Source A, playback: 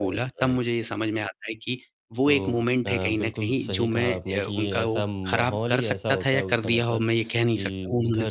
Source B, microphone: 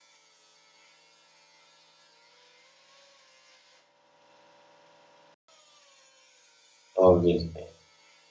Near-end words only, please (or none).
ऑब्वियसली।